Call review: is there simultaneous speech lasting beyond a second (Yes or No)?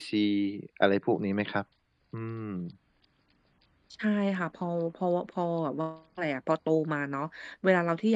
No